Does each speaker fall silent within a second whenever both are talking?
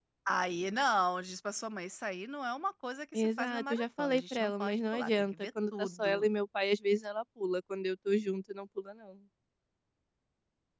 No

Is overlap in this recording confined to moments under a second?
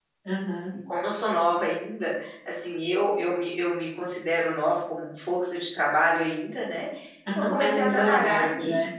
No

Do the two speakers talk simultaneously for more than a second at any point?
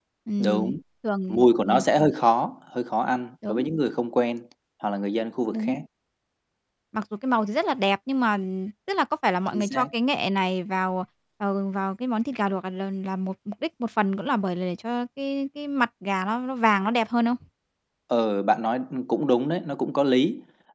No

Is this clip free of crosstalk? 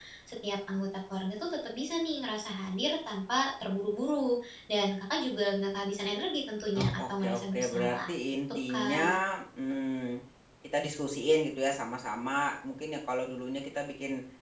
No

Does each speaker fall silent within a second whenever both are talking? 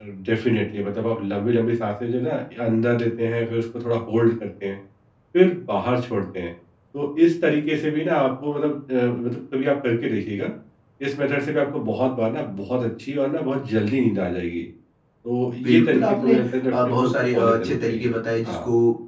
No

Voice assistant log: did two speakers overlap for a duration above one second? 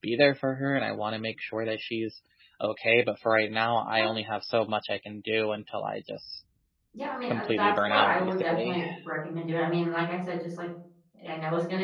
Yes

